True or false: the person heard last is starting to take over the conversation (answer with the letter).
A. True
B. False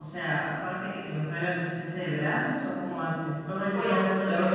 A